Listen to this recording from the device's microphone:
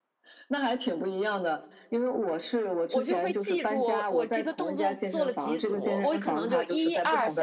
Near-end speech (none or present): present